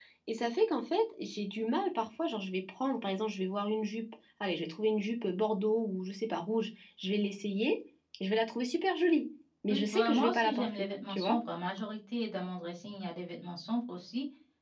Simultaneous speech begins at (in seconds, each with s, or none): 9.7 s